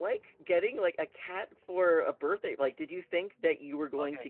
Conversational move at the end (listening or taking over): taking over